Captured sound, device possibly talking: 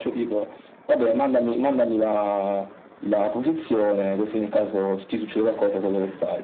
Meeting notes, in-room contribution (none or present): none